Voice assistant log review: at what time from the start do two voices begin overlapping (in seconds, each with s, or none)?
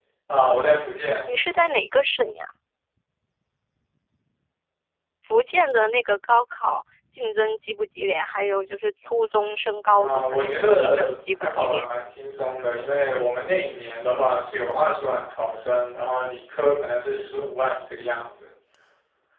9.9 s